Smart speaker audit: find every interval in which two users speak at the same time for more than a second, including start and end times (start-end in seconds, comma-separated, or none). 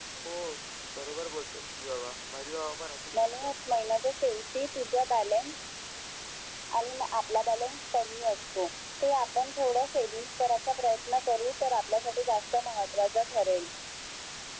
none